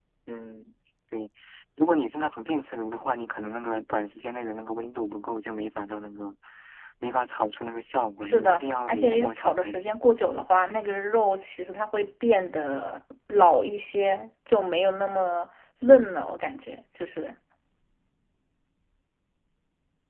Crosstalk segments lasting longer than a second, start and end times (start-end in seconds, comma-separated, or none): 8.2-10.0